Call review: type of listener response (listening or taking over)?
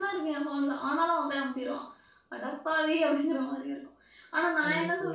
listening